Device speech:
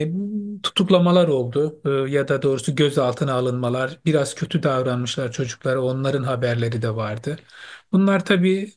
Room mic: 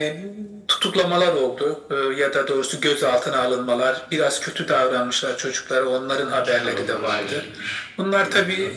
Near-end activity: present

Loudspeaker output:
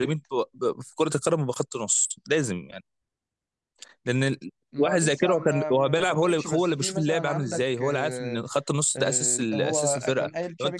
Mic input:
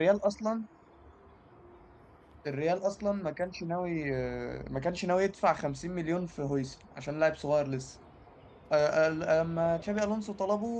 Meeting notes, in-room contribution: present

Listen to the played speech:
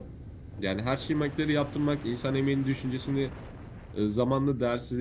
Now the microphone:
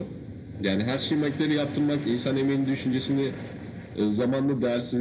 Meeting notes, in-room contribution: none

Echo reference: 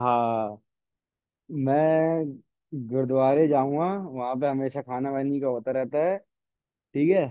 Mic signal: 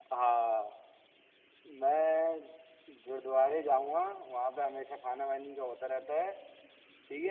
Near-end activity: none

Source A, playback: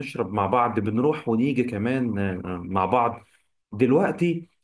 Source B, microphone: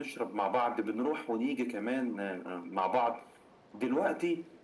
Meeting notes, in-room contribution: none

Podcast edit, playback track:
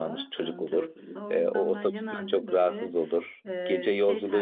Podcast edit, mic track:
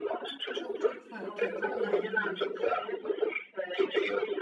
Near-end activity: present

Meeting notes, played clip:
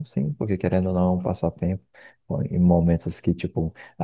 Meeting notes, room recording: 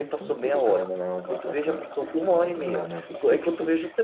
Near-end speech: present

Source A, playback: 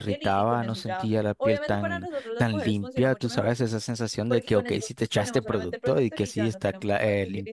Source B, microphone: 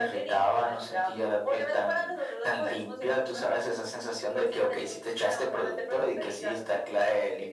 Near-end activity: none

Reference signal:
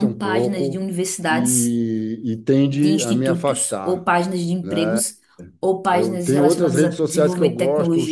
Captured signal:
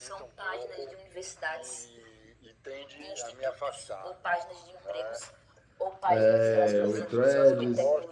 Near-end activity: present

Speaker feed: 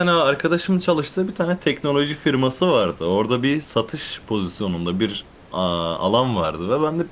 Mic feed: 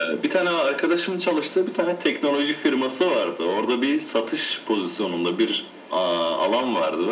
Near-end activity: none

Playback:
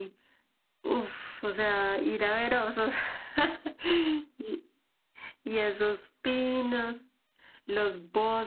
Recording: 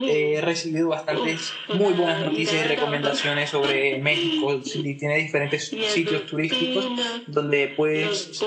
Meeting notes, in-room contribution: present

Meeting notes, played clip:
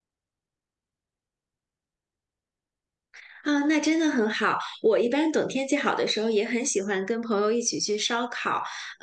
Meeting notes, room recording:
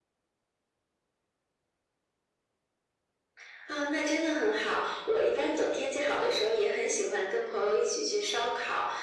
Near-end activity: none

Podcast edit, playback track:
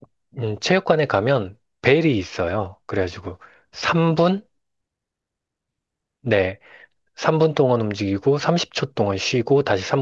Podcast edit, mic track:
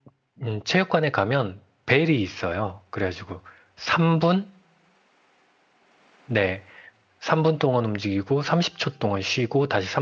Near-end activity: none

